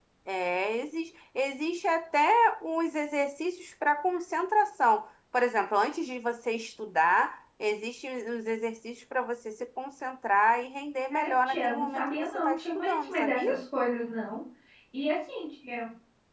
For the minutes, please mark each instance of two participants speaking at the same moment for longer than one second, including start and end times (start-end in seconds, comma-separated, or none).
11.1-13.5